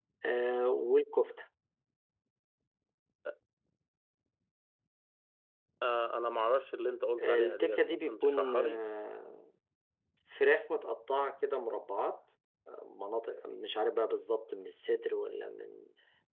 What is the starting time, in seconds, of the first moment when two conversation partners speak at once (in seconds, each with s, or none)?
7.2 s